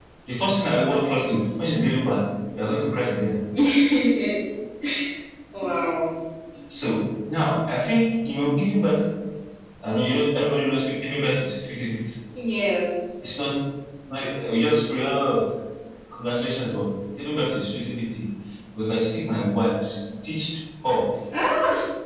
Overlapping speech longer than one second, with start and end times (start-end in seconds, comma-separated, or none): none